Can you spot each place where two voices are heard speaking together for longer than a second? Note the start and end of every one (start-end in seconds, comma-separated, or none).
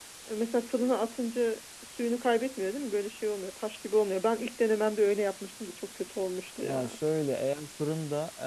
none